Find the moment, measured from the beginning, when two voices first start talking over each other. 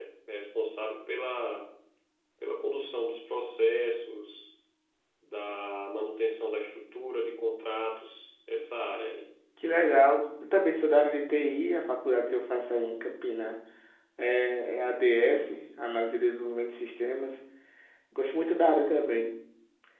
none

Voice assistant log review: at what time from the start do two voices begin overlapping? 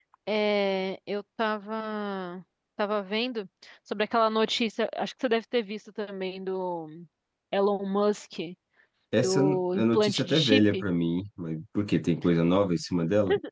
9.2 s

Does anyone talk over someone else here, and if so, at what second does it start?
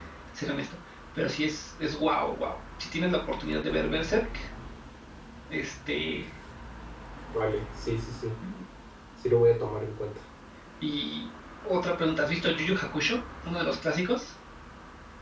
none

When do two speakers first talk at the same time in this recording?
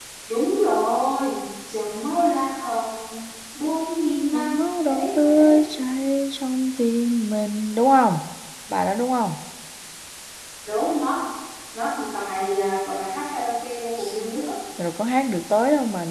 4.3 s

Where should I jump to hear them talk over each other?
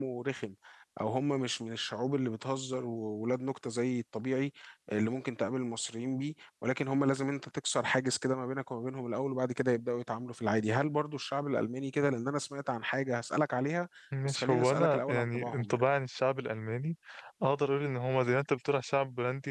14.2 s

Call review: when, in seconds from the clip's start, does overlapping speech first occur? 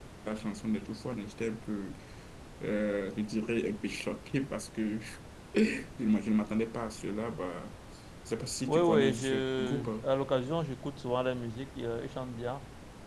8.7 s

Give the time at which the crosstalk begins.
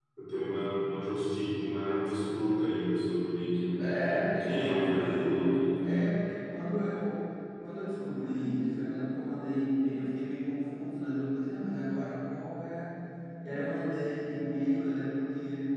3.8 s

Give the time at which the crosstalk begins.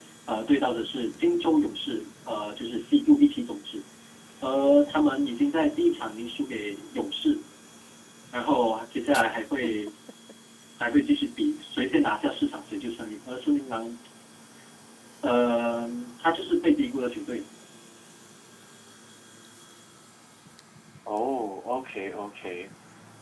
none

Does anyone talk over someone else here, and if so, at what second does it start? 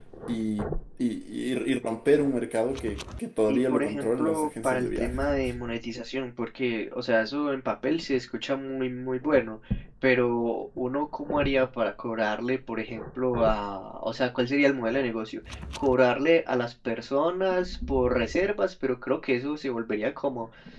3.5 s

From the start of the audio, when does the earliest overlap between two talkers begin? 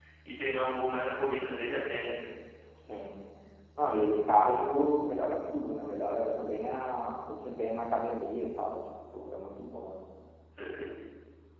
none

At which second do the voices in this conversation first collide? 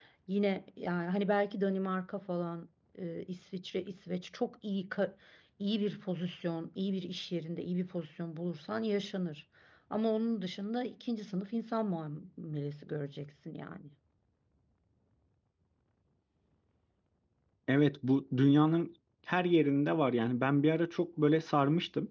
none

